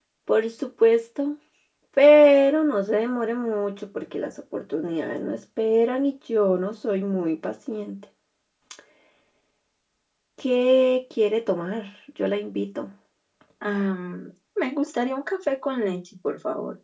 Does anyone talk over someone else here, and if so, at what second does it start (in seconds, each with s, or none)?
none